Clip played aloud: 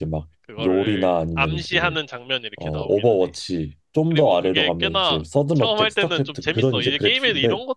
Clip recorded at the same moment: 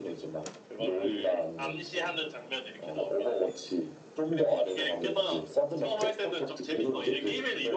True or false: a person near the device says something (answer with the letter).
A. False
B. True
A